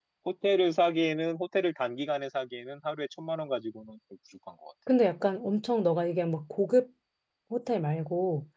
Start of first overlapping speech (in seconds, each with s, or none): none